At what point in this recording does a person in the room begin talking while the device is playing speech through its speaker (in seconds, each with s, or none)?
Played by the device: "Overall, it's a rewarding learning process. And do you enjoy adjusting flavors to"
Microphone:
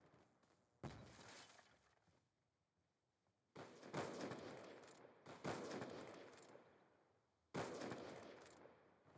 none